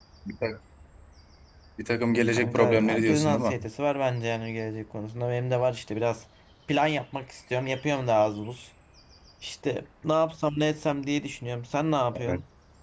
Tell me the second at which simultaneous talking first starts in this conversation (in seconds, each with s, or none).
2.3 s